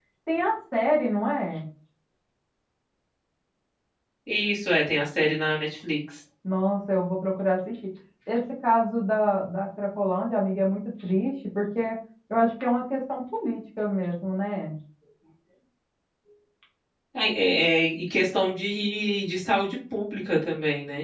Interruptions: none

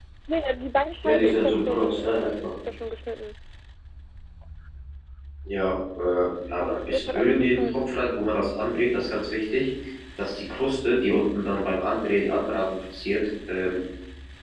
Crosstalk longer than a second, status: present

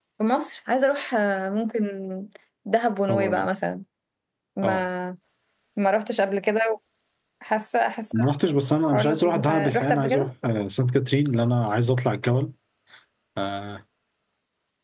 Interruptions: present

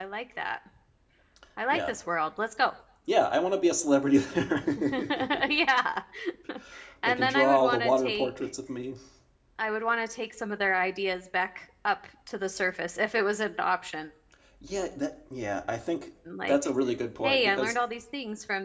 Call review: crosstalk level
present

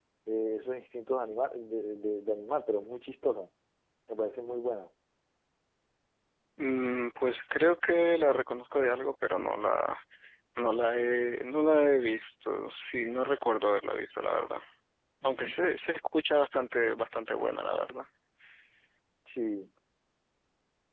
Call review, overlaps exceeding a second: none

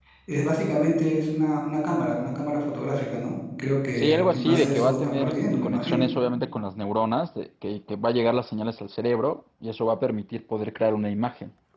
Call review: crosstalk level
present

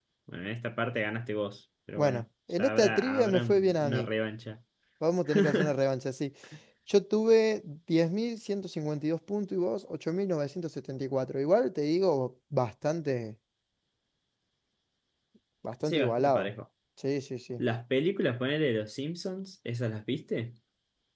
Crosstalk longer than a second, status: present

